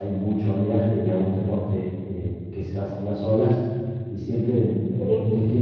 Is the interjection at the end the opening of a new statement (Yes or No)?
No